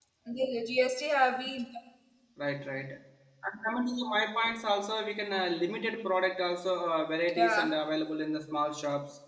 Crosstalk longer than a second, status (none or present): none